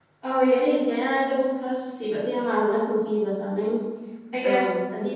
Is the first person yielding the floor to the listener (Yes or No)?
No